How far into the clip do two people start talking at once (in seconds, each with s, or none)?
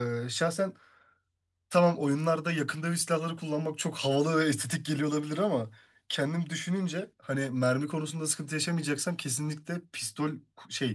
none